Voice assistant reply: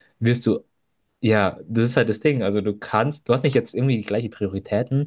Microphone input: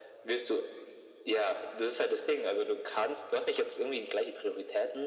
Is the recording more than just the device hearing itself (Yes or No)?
No